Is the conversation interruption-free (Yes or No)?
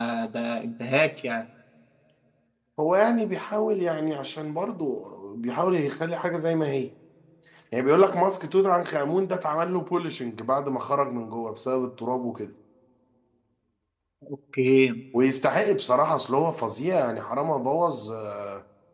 Yes